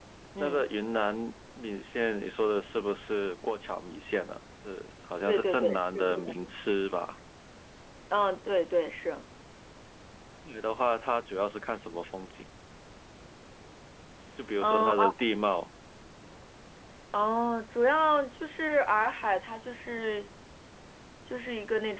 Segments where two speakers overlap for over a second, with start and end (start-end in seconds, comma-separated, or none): 5.3-6.5